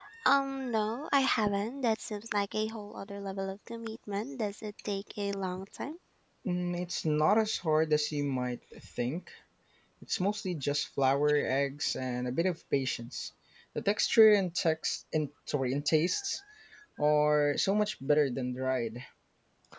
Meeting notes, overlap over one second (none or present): none